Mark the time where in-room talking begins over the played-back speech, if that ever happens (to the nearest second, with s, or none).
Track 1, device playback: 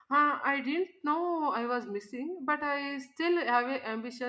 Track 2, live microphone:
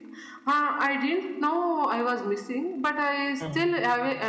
3 s